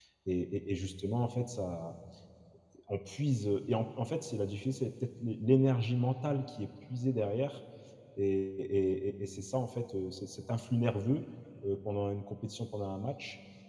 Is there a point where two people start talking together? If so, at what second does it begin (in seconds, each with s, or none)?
none